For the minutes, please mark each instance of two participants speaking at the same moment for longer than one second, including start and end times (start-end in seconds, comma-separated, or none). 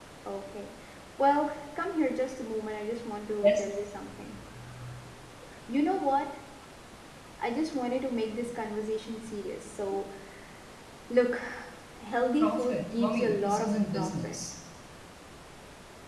12.4-14.4